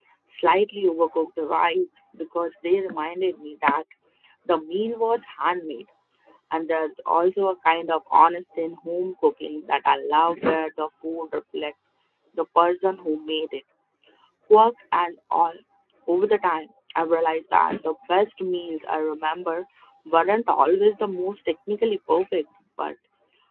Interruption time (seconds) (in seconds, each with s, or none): none